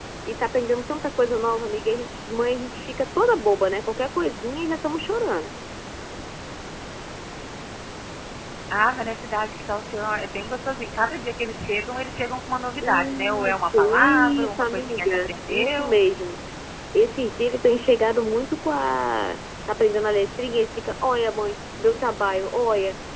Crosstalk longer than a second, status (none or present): present